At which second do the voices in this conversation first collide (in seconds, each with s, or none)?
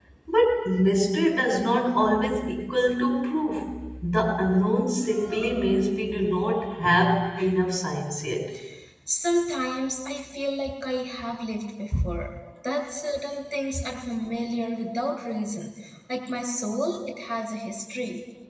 none